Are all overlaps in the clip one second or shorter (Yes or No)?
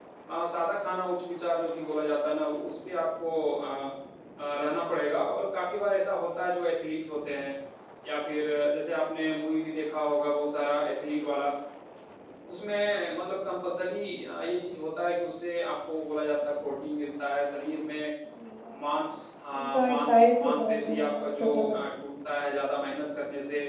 No